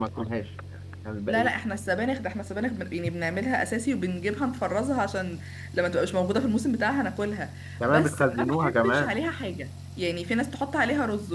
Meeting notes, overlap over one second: present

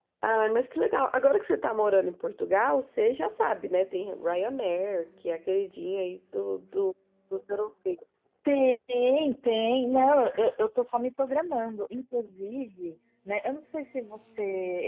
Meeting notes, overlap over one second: none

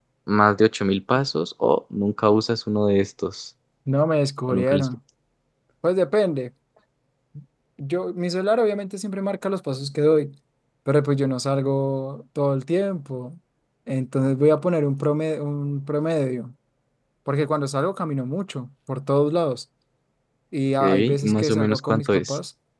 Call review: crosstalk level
present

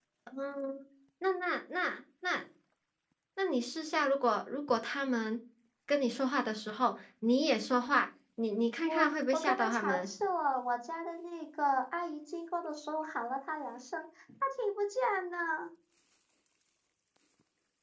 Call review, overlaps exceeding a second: present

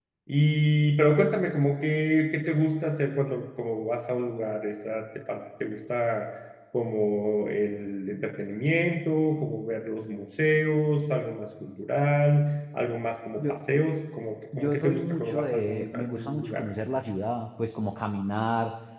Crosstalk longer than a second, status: present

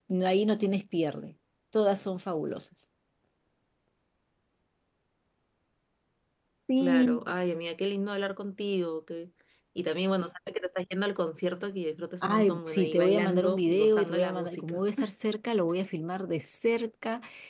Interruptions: present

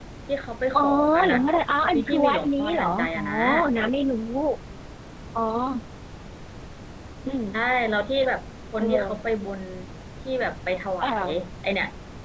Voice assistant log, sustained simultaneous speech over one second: present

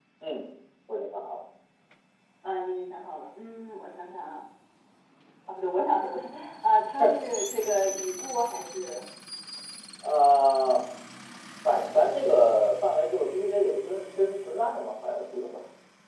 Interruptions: none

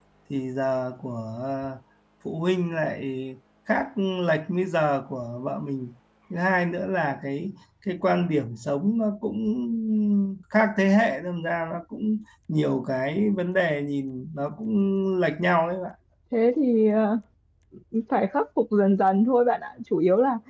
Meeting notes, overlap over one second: none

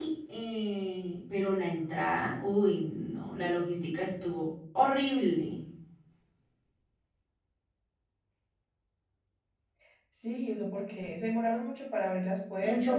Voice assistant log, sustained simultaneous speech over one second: none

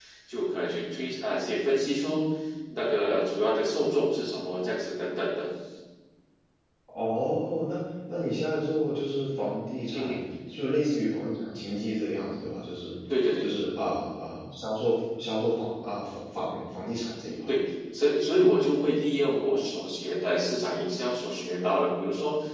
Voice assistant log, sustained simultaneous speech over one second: none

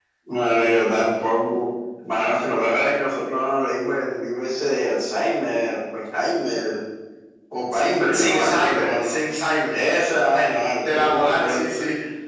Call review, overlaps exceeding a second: present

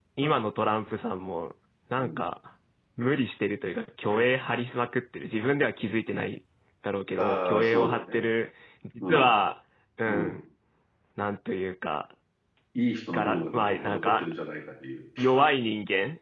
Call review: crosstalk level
present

